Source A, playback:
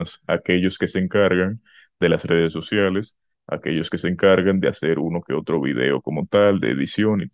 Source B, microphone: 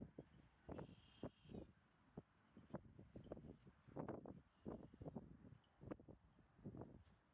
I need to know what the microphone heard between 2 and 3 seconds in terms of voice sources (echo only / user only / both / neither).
neither